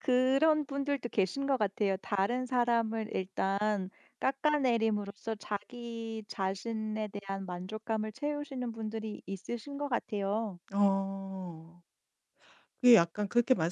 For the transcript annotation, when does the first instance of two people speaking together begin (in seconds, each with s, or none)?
none